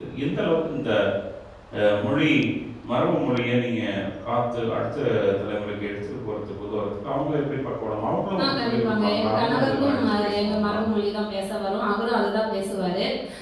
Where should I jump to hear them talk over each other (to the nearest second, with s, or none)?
8 s